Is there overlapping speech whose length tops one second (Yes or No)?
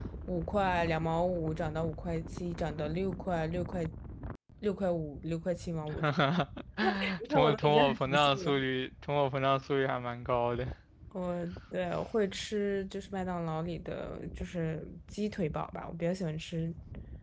Yes